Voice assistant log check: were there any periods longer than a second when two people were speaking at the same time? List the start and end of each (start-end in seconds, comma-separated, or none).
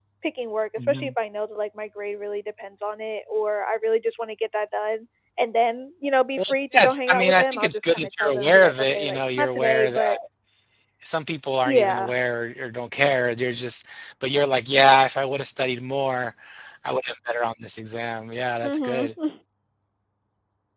6.4-10.2